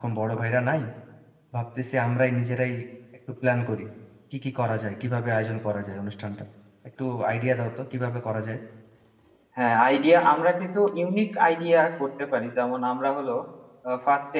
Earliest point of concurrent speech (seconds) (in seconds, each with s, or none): none